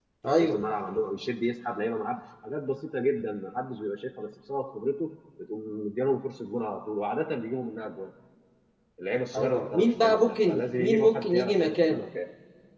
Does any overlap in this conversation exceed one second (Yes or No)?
Yes